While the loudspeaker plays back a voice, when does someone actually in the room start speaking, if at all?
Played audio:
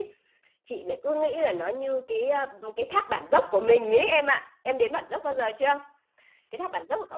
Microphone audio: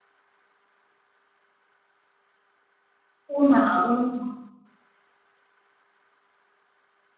3 s

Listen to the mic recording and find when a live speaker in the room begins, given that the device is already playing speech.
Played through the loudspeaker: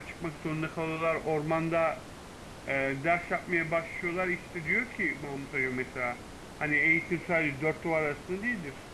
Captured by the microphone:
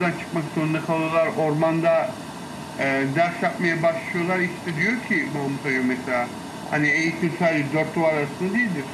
none

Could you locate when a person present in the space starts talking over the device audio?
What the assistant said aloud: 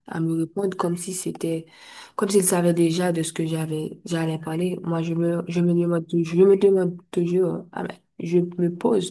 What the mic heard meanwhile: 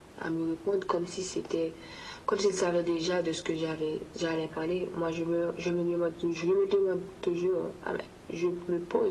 none

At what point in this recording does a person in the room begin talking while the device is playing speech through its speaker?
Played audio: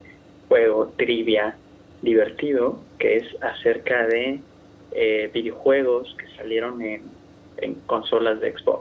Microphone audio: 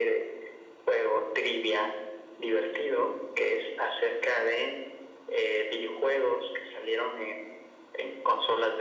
none

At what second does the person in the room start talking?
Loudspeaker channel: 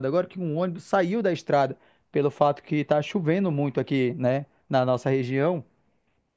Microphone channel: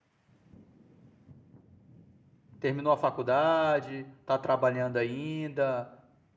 3 s

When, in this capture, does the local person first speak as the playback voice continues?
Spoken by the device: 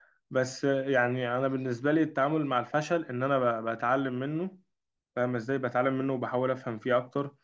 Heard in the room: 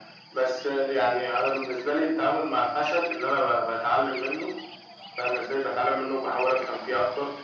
none

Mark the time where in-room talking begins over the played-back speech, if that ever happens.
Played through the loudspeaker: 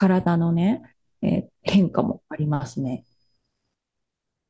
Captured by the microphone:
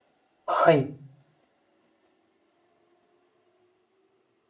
0 s

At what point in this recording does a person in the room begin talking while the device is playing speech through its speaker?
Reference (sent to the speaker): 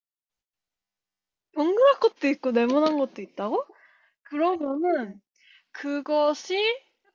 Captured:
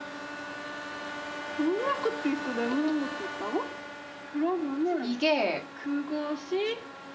5 s

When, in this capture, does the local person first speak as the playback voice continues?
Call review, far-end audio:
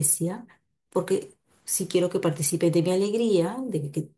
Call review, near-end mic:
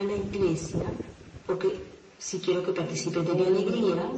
3 s

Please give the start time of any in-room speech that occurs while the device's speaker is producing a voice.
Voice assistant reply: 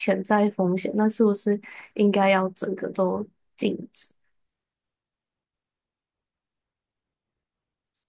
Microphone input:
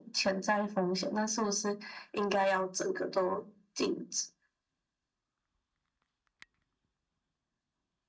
none

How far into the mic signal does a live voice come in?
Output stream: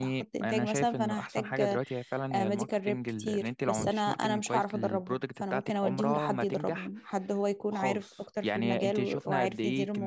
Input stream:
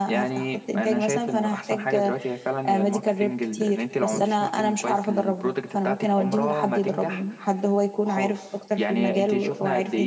none

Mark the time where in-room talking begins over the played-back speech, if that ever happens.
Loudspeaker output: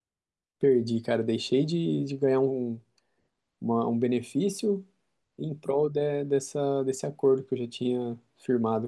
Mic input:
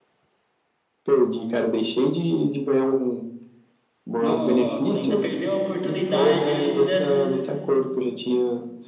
4 s

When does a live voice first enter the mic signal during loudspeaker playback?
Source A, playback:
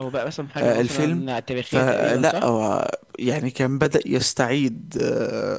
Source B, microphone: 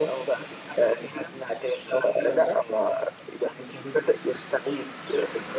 none

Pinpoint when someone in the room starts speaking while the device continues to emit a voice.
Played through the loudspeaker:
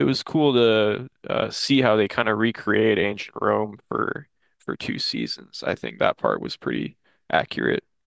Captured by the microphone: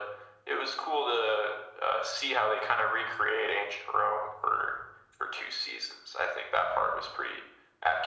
none

